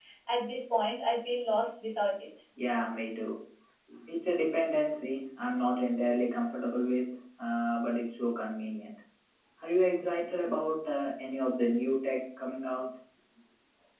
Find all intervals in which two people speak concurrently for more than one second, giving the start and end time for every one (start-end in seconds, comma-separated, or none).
none